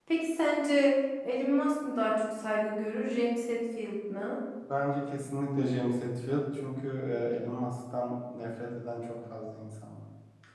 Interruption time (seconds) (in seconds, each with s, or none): none